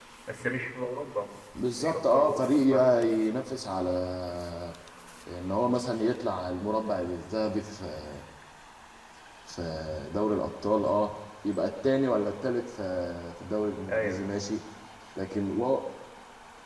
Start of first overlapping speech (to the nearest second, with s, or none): 2 s